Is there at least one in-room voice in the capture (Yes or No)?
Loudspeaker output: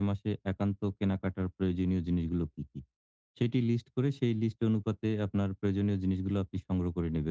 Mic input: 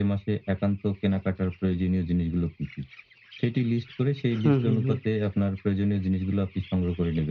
Yes